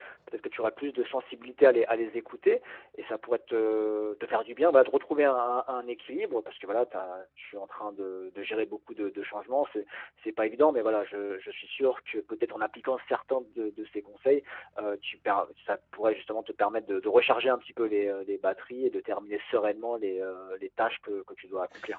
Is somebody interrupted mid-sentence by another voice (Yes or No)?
No